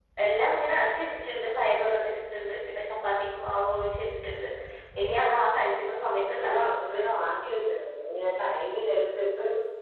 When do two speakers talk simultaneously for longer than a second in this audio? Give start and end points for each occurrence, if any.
none

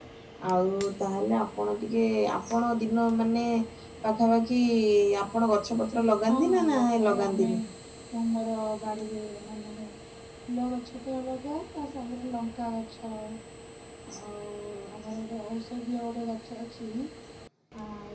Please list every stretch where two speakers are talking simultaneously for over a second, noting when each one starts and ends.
6.2-7.5

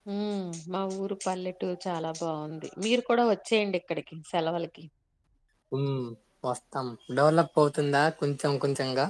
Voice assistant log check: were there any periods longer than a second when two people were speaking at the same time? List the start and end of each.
none

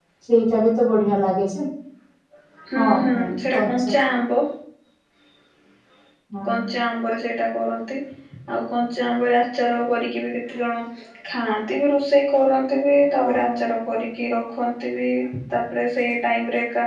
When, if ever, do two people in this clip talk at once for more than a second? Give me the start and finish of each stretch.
none

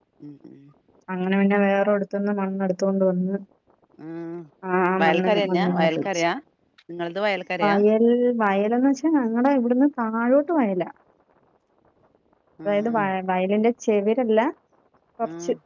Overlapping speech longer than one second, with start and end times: 5.0-6.2

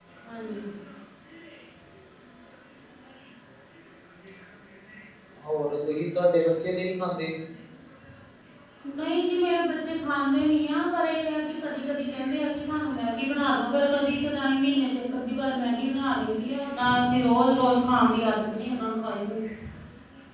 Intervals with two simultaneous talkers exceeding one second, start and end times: none

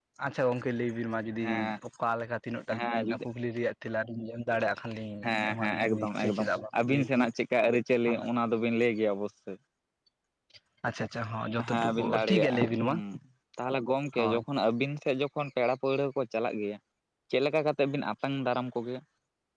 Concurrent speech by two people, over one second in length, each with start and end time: 5.2-6.5, 11.6-12.9

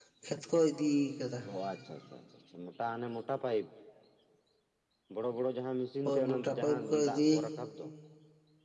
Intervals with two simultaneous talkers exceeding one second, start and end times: 6.0-7.5

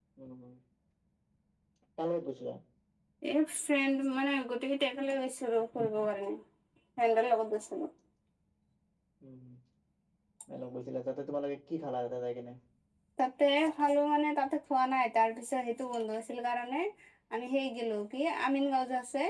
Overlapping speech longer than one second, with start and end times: none

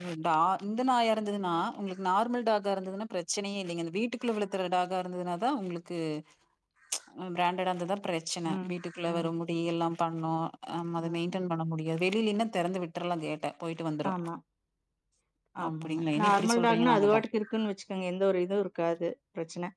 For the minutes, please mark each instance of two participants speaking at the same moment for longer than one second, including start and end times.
15.7-17.2

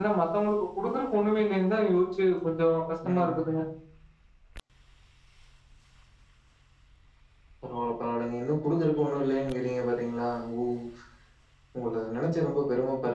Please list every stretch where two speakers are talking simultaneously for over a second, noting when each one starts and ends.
none

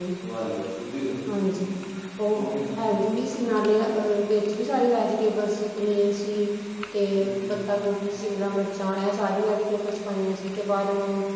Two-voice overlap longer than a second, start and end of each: none

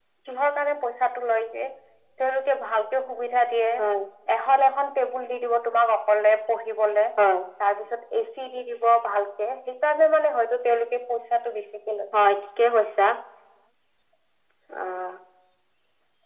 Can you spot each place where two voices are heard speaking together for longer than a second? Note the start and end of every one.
none

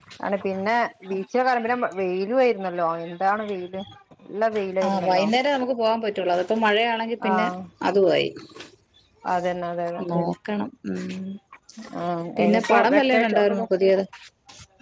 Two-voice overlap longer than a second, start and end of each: 12.4-13.7

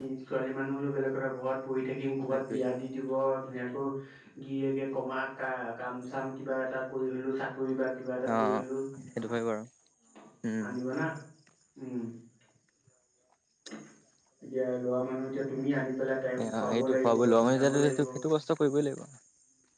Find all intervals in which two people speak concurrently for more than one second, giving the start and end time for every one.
16.4-18.0

